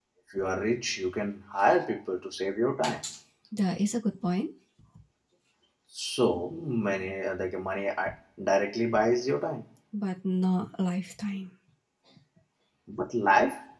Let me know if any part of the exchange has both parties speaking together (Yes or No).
No